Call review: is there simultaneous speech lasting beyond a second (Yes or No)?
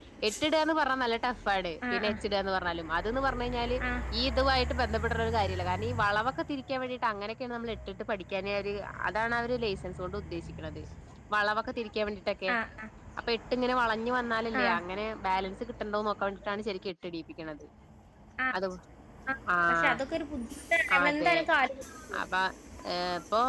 No